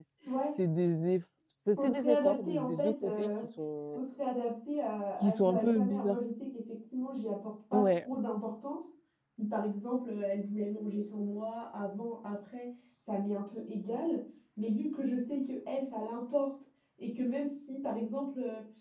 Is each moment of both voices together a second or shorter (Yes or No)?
No